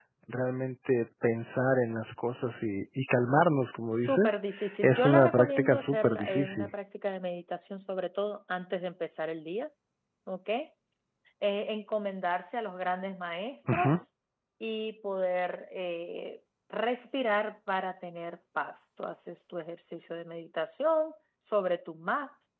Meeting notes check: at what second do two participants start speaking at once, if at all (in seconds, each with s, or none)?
3.9 s